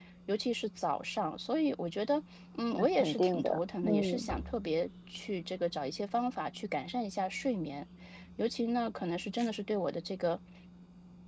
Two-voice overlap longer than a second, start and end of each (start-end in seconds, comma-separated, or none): 2.7-4.3